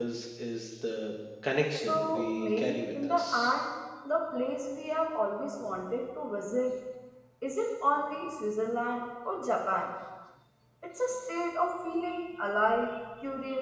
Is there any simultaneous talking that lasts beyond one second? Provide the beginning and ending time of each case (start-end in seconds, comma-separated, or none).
1.9-3.5